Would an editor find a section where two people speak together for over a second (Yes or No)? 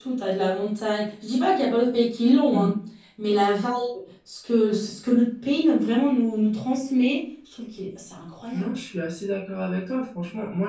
No